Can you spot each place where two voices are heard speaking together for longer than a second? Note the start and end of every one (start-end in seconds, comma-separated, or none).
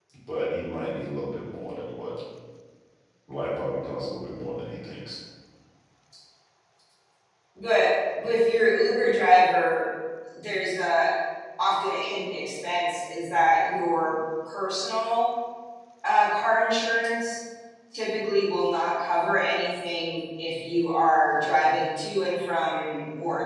none